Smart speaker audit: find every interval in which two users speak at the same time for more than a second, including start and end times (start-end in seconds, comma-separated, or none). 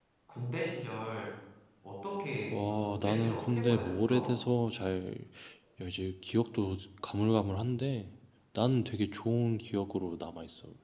2.5-4.3